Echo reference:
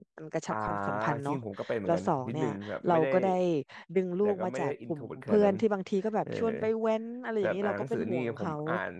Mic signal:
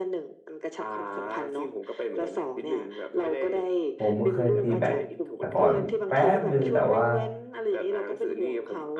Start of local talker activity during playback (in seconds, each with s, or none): 4.0 s